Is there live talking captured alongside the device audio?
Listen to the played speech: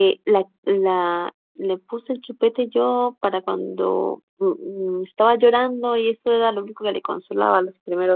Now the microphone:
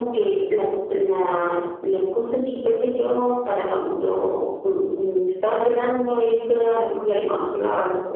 No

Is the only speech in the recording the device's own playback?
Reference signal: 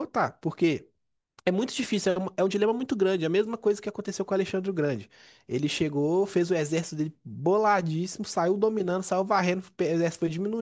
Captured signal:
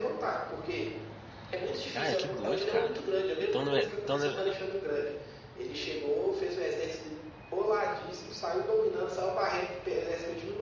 No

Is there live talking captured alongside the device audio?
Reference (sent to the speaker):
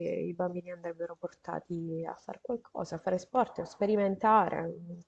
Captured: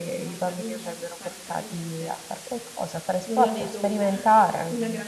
Yes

